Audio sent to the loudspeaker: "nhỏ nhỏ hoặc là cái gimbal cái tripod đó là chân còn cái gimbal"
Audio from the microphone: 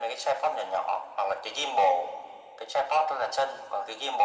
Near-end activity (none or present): none